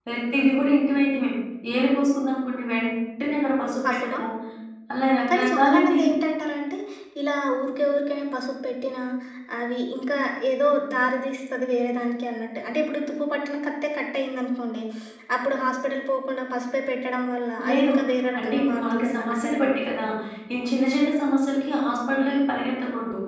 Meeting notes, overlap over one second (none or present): present